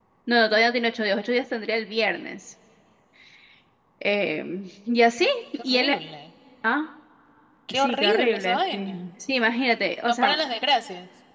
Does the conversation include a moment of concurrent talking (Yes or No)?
Yes